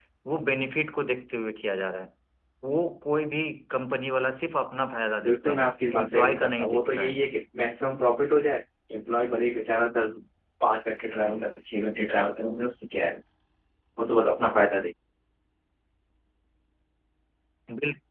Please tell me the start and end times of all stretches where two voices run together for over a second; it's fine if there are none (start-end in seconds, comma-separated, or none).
5.2-7.2